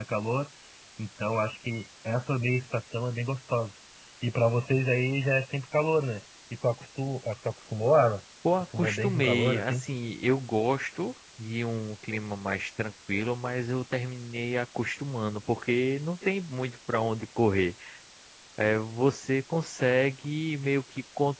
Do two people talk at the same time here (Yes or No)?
Yes